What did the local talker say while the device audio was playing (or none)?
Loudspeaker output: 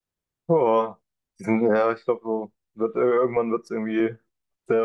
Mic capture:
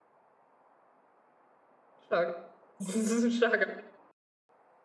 Stark. Das ist ein starker.